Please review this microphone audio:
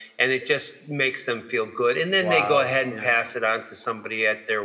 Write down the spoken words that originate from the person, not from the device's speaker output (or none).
Wow, yeah.